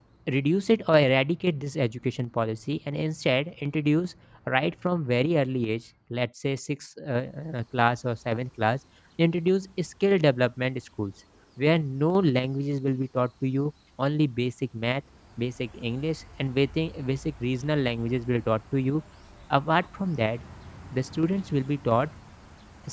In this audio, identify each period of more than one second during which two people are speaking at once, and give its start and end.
none

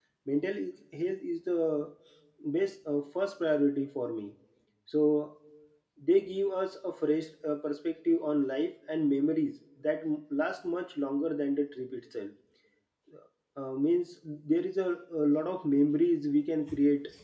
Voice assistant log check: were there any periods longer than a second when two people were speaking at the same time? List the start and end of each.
none

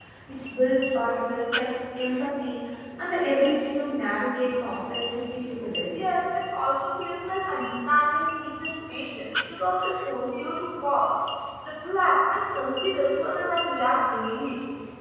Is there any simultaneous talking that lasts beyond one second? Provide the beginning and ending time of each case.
none

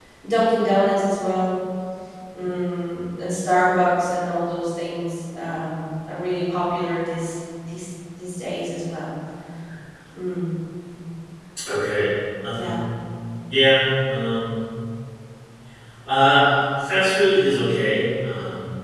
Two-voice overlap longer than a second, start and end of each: none

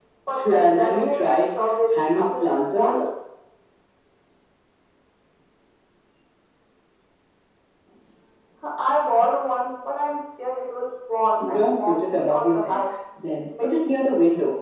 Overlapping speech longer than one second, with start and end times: 0.5-3.1, 11.5-12.8

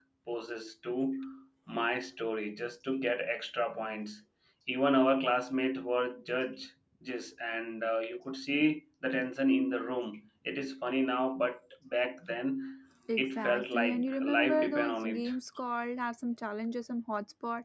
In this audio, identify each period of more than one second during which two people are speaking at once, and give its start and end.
13.2-15.3

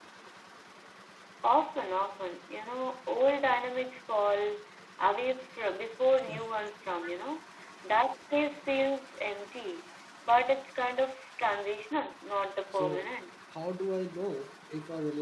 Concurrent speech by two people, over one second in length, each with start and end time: none

